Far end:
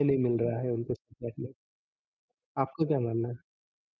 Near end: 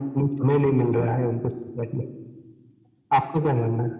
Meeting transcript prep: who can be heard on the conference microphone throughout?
echo only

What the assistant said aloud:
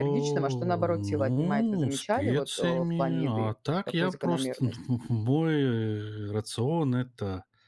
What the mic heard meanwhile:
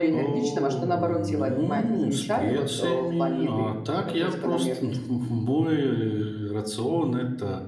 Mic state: echo only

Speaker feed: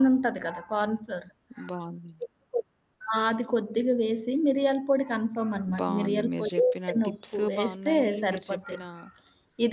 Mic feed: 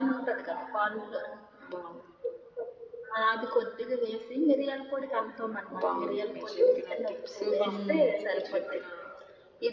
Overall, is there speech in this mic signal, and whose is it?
both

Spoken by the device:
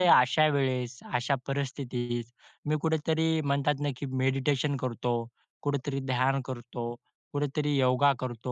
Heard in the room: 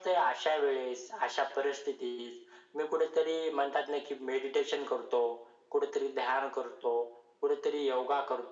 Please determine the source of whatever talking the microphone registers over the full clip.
echo only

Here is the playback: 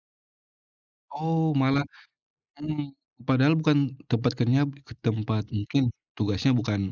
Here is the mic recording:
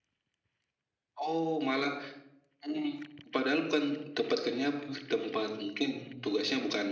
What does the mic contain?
both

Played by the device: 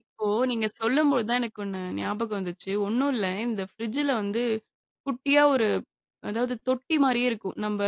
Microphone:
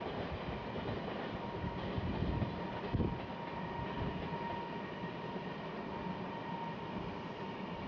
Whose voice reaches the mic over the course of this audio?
neither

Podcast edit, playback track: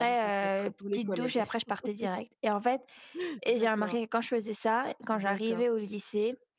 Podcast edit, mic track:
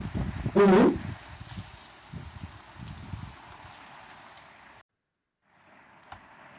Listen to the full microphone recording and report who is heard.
user only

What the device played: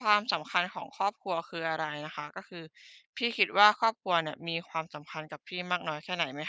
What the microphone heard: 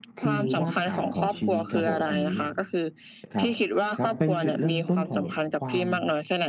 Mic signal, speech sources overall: both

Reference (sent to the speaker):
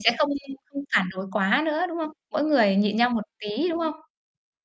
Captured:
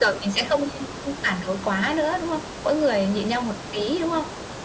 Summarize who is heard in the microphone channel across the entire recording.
echo only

